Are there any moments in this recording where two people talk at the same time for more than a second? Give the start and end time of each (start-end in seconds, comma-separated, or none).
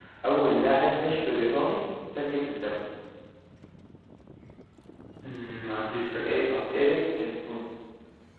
none